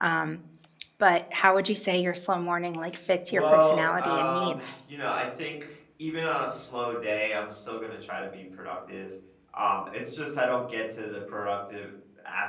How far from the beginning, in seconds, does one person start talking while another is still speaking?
3.3 s

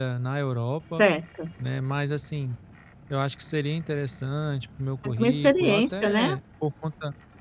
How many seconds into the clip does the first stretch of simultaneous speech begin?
5.0 s

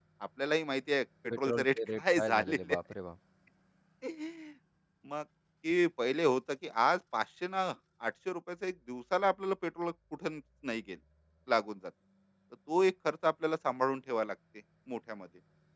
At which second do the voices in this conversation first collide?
1.3 s

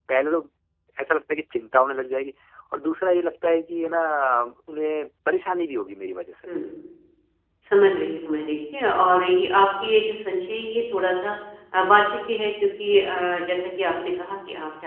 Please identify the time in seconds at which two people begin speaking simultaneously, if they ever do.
none

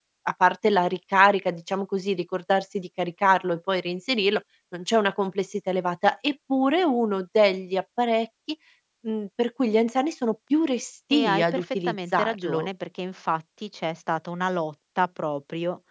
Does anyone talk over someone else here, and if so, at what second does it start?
11.1 s

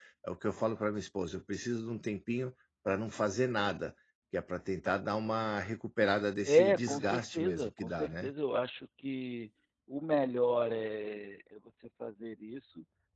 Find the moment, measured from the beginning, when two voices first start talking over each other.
6.4 s

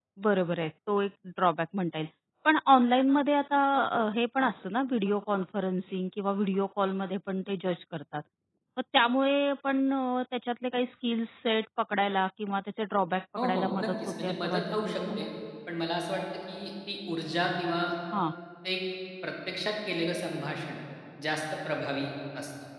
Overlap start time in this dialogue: 13.4 s

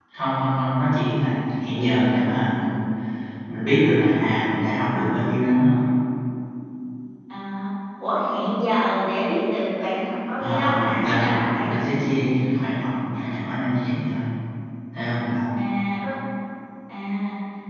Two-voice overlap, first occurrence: 10.4 s

